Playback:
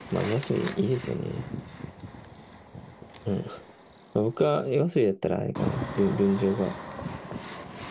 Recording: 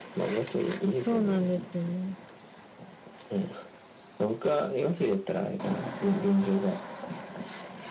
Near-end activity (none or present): present